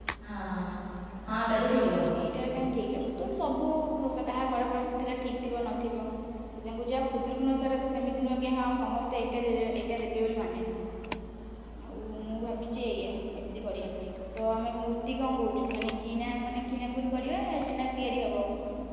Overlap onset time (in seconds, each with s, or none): none